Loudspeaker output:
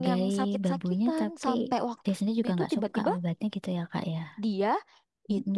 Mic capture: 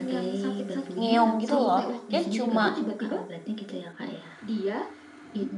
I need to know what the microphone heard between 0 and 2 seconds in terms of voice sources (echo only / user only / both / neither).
both